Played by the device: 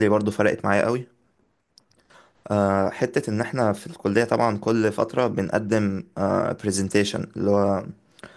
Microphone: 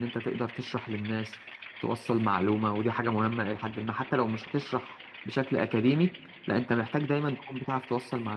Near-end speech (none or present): present